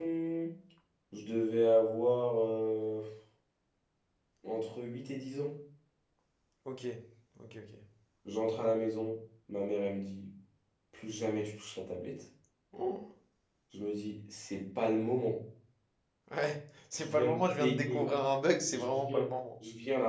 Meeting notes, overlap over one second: present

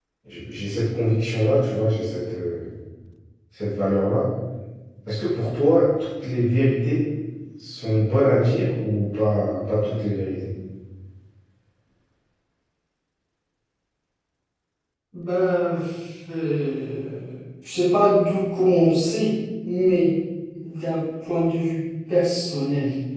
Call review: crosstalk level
none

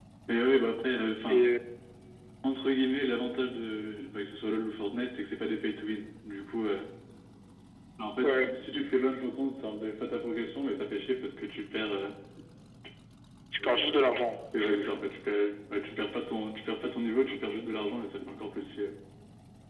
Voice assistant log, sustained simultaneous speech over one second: none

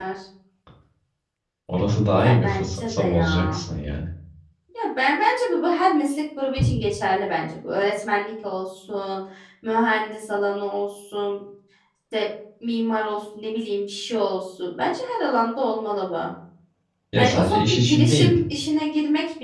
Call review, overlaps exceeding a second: present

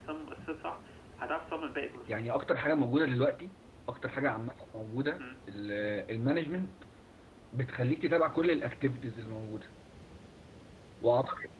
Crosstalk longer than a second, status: none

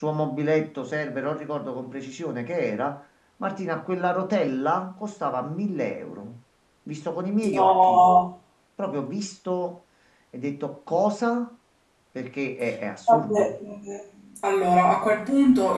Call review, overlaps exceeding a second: none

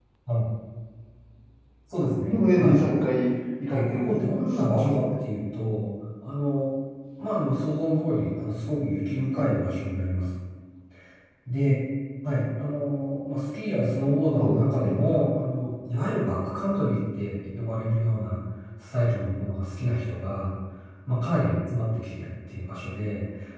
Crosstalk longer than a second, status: present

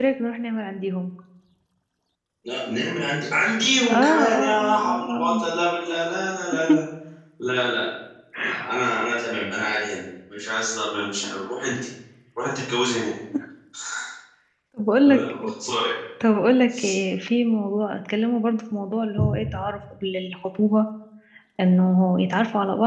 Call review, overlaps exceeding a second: present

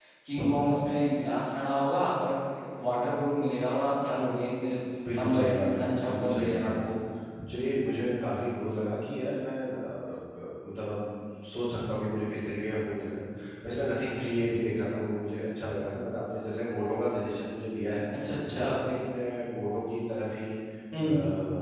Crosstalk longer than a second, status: present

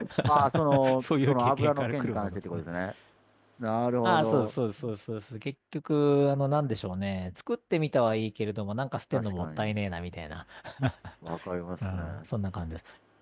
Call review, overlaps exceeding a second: present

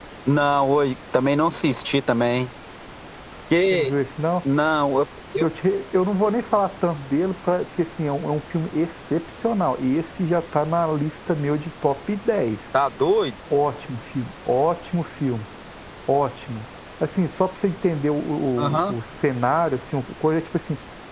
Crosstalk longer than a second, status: none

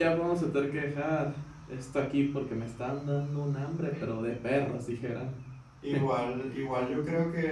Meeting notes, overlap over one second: none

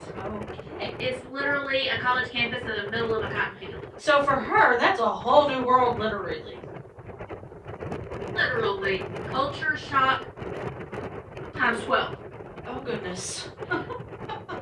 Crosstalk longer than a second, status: none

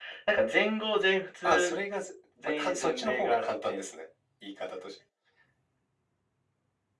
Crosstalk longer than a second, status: present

